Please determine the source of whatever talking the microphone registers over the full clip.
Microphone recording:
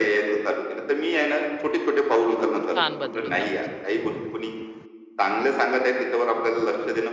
both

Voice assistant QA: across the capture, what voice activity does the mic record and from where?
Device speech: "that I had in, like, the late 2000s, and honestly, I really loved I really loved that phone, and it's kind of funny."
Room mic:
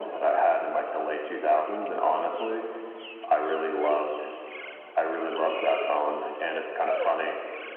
echo only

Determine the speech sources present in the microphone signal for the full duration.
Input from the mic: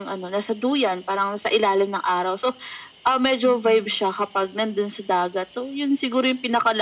both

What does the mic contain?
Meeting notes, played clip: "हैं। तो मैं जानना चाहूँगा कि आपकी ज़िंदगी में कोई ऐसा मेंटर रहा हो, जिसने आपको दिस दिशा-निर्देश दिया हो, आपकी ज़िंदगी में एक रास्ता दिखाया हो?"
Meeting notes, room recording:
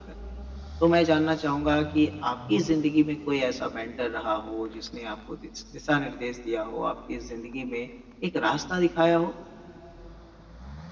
echo only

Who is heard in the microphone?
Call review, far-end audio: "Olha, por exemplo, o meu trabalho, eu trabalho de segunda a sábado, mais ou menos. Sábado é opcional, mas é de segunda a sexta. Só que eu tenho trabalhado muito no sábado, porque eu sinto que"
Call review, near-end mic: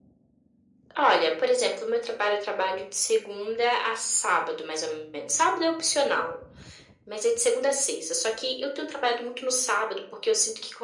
echo only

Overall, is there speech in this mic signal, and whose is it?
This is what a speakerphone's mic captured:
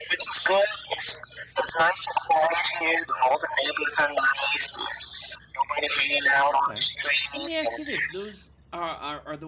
both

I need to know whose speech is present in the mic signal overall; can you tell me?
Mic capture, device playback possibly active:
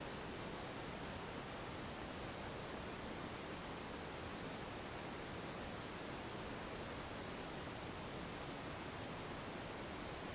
neither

